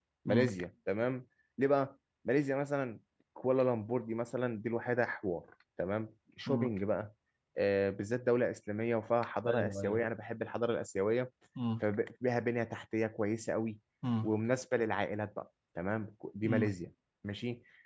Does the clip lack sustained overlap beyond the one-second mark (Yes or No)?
Yes